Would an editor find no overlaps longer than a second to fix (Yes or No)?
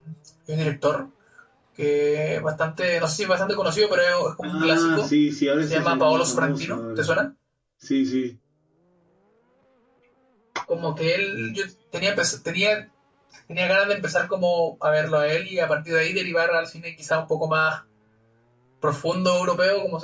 No